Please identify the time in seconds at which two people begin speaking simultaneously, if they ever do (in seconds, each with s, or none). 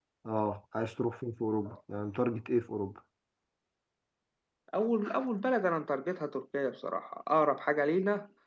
none